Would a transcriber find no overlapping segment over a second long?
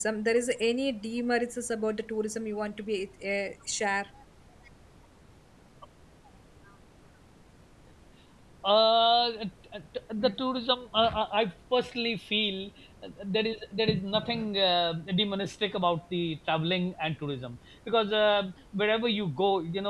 Yes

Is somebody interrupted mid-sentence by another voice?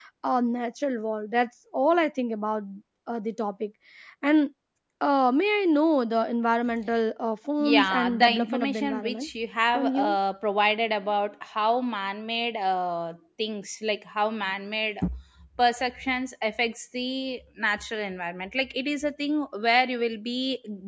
Yes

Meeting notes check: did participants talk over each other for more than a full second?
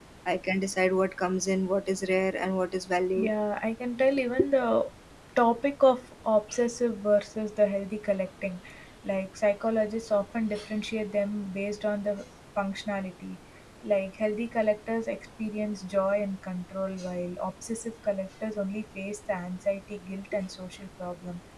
No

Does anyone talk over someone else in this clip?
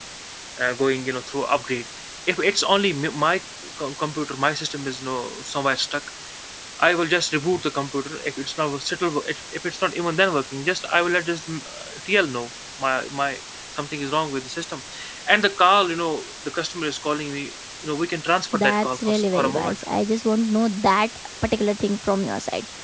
Yes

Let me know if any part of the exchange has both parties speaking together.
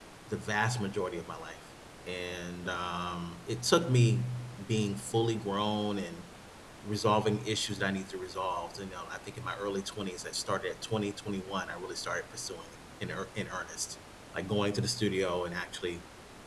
No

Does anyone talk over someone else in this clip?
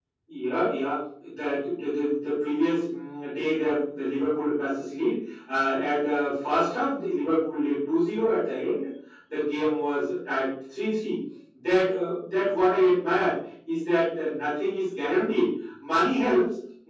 No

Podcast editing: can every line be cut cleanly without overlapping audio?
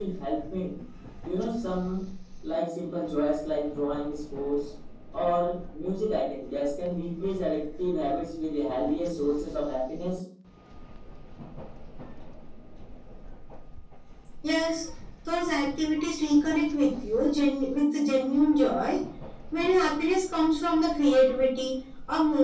Yes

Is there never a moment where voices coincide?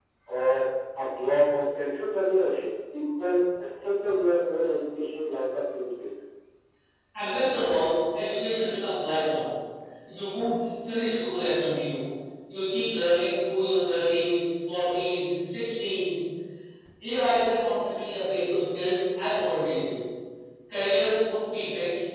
Yes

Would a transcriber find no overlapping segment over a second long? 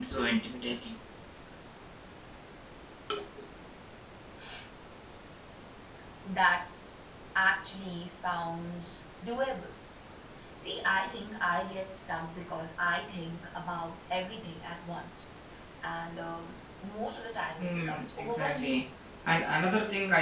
No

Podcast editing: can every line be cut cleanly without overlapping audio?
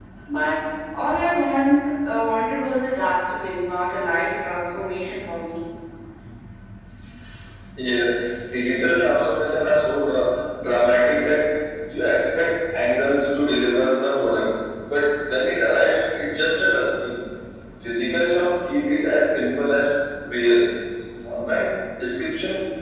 Yes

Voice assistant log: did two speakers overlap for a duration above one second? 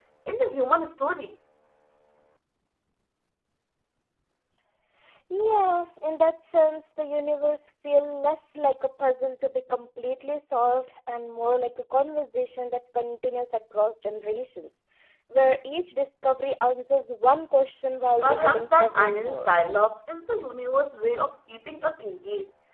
Yes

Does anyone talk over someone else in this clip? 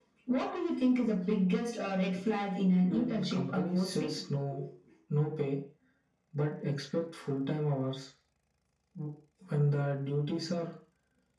Yes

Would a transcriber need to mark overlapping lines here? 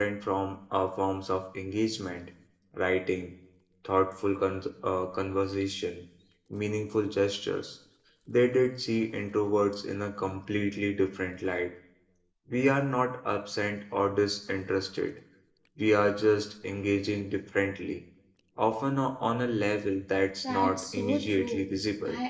Yes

